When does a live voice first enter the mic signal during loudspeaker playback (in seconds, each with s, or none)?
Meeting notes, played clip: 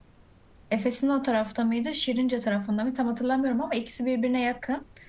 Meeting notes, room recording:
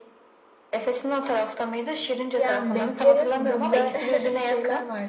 2.4 s